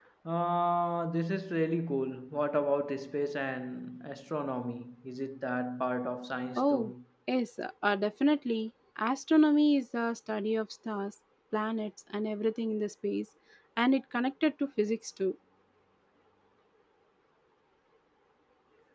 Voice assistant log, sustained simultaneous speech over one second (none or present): none